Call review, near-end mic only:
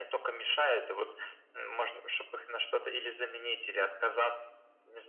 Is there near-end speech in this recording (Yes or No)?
No